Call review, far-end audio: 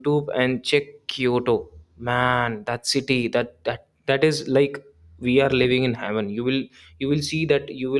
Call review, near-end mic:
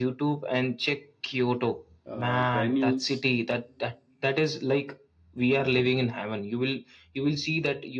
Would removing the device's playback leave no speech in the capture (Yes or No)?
No